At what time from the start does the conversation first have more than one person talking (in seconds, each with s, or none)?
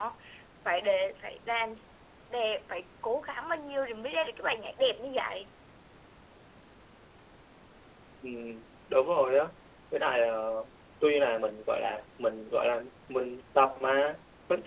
none